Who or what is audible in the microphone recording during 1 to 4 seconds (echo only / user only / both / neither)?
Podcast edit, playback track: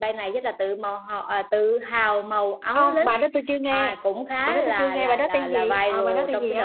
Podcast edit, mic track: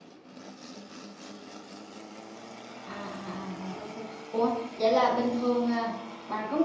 user only